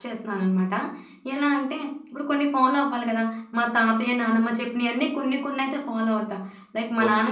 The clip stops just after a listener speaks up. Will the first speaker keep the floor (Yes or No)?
No